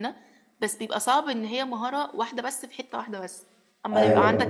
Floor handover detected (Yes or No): Yes